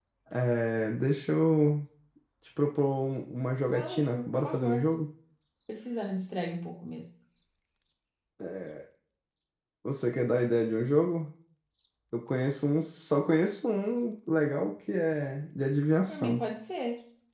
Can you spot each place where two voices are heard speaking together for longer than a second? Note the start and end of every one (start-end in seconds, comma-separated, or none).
3.6-4.9